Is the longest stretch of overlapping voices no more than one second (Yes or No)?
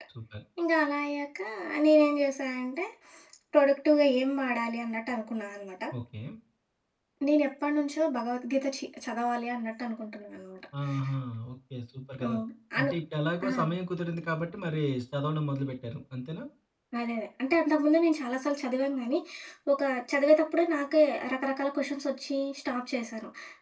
Yes